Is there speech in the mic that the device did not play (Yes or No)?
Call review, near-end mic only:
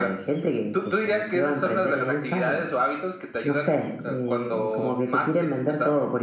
No